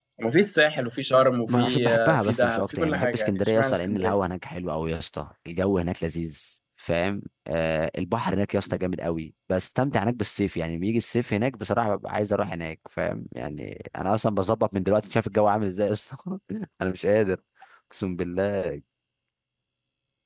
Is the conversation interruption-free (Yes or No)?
No